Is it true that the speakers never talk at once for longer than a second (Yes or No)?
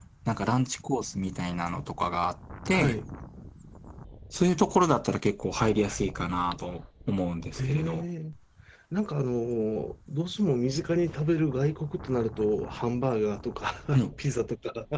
Yes